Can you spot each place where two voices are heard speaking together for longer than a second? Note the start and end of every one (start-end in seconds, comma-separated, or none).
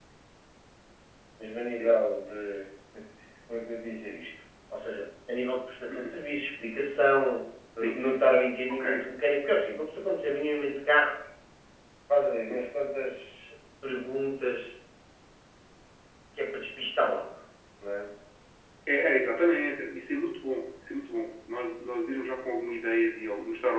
none